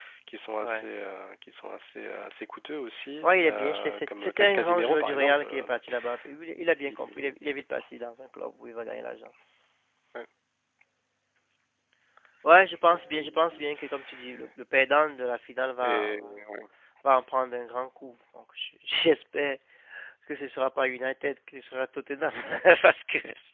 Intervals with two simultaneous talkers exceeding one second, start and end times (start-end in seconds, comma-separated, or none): 3.2-5.7